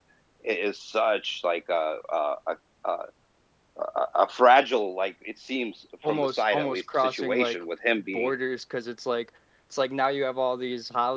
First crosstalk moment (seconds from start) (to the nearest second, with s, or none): 6 s